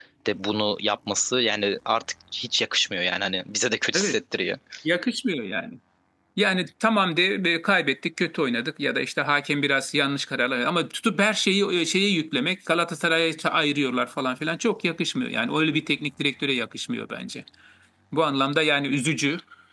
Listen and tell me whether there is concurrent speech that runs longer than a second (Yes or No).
No